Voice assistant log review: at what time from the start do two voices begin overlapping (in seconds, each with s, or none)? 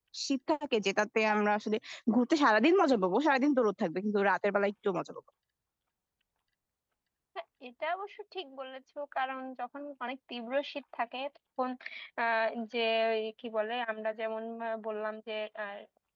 none